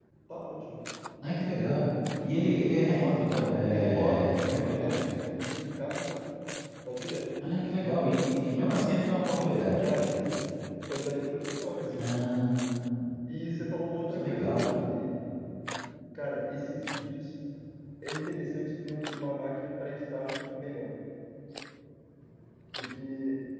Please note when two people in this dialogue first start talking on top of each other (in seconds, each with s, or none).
3.7 s